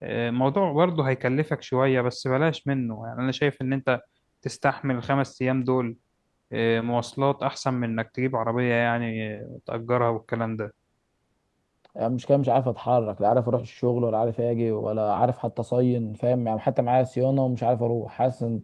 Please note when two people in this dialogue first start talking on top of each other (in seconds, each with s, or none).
none